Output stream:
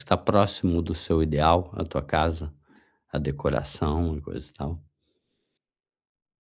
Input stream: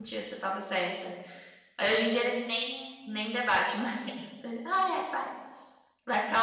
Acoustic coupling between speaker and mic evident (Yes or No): No